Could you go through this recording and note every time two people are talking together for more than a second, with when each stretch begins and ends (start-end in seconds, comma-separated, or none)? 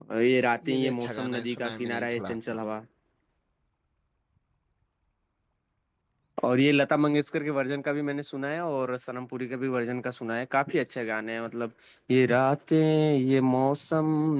0.7-2.6